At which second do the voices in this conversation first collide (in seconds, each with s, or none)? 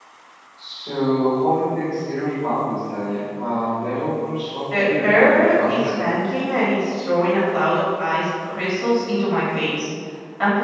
4.7 s